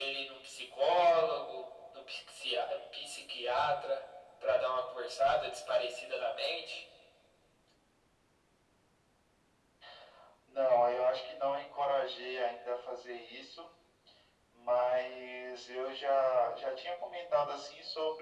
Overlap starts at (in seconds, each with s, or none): none